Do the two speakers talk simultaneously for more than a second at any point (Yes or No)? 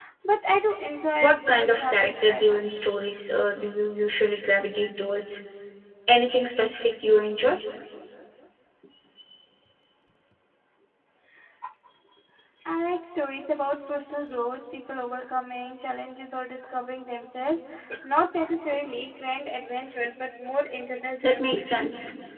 Yes